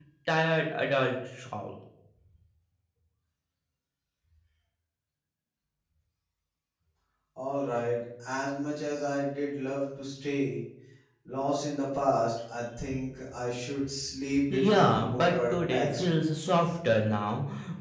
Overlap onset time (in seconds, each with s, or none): 14.3 s